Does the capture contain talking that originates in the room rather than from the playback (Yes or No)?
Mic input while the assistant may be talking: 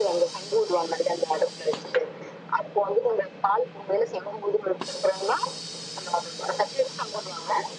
No